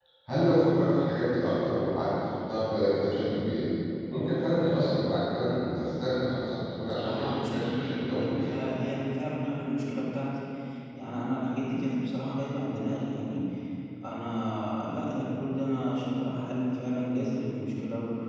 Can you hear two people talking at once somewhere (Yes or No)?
Yes